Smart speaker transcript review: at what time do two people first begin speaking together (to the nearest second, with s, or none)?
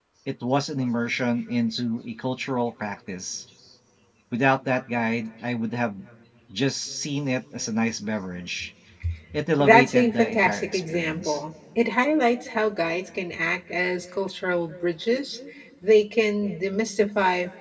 10 s